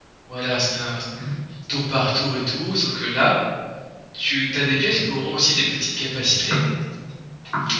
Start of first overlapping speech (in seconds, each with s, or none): none